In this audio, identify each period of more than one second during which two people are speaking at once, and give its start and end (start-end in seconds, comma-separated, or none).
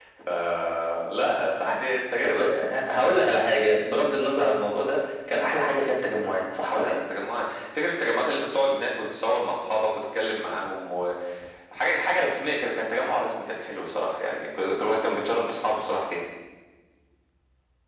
none